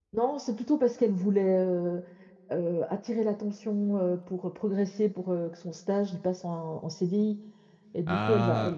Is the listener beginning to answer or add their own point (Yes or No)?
No